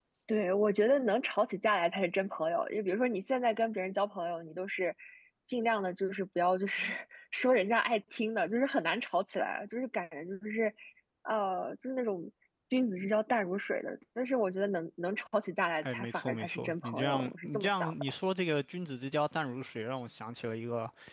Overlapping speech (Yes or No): Yes